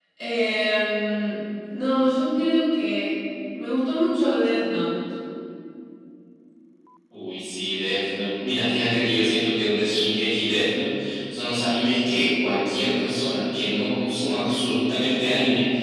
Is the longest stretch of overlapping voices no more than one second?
Yes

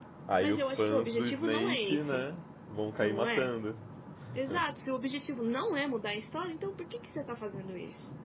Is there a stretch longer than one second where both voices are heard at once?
Yes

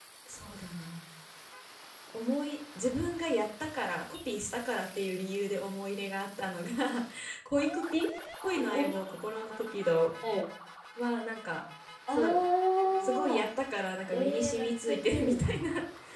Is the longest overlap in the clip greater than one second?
Yes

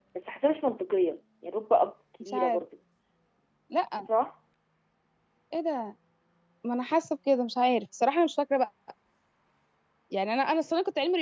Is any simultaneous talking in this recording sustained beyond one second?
No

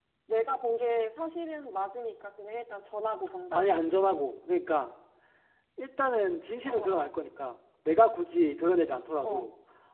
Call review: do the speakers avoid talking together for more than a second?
Yes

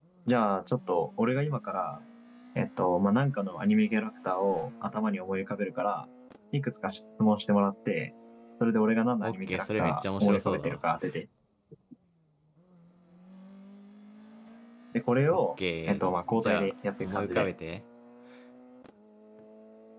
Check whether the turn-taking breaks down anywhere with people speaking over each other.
Yes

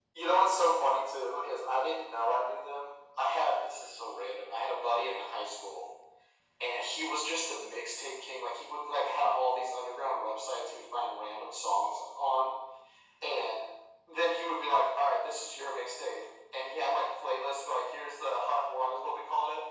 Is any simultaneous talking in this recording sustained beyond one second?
No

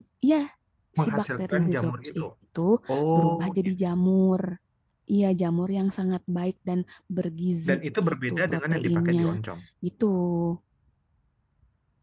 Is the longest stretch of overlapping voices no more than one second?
No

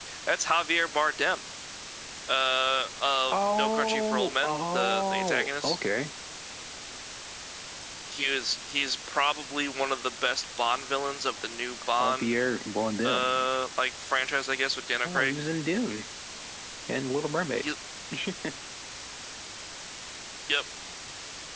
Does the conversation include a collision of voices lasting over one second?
Yes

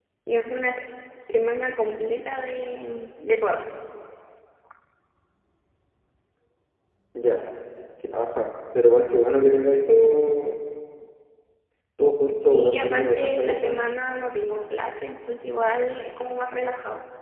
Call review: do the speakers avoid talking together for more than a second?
No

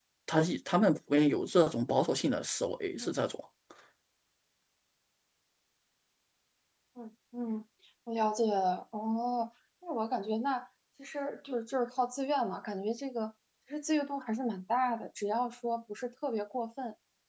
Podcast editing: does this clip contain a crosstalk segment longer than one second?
No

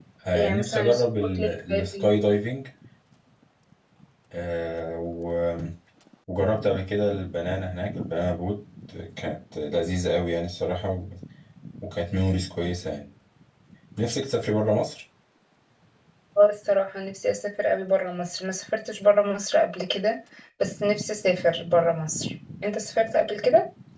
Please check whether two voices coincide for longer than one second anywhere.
Yes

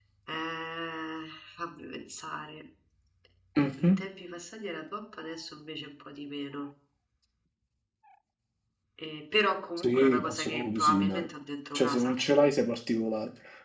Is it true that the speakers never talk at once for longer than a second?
No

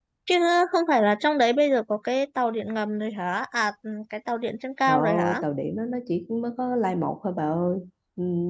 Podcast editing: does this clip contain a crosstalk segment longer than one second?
No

